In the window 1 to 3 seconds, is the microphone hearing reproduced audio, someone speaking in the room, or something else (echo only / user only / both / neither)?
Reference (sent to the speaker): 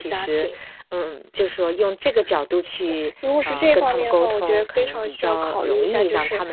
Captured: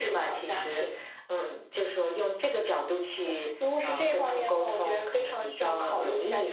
echo only